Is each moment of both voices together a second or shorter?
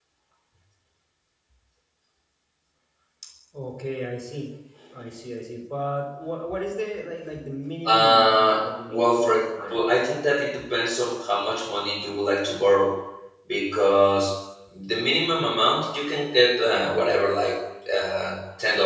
No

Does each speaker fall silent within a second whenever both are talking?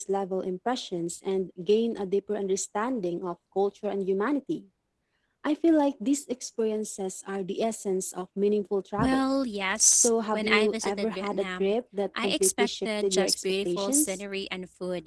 No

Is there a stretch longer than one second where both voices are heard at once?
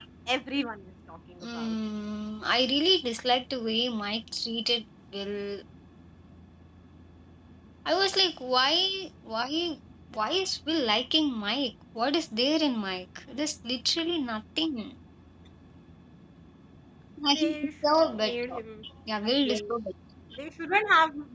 Yes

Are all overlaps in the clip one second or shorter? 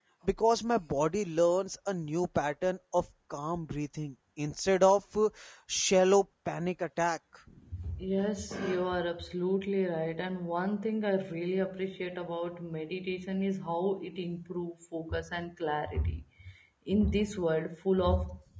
Yes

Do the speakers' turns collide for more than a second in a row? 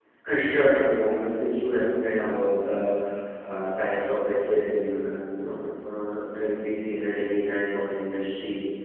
No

